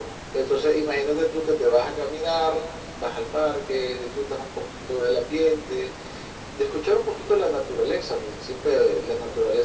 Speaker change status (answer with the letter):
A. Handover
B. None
B